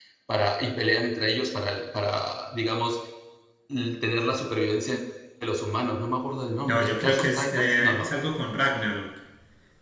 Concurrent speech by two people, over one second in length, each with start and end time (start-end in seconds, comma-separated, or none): 6.6-8.1